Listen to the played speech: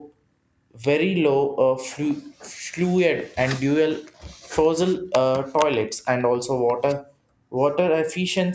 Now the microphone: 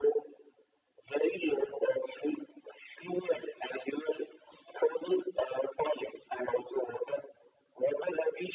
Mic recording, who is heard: echo only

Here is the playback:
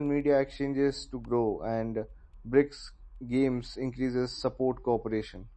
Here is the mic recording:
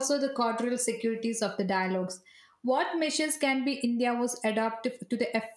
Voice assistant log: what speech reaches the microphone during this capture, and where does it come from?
user only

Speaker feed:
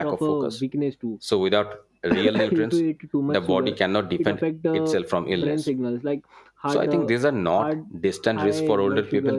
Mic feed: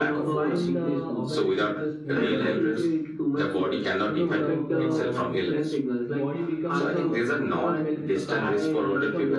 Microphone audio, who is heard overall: both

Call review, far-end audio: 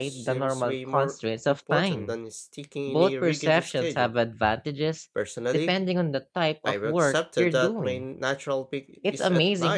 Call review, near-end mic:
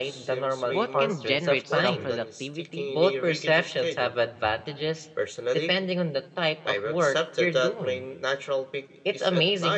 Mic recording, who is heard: both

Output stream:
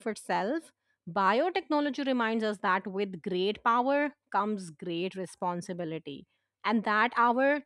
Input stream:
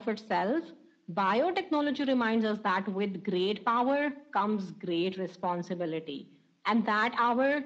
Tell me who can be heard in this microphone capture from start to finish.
echo only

